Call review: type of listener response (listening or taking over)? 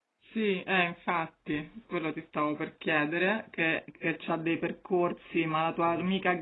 listening